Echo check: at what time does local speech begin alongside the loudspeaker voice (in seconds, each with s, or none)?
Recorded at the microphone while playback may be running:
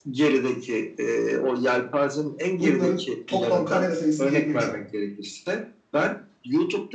2.6 s